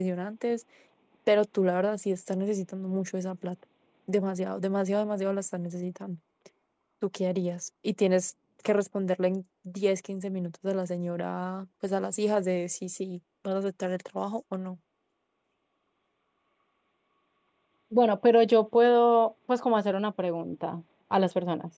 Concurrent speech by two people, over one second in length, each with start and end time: none

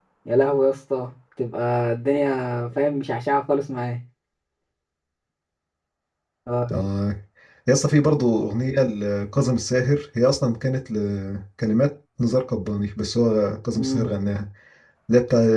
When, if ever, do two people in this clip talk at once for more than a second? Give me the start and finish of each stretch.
none

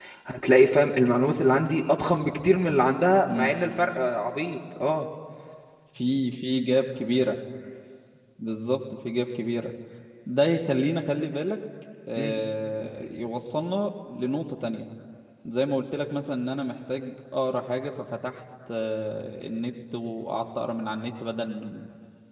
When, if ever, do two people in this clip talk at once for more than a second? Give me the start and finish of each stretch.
none

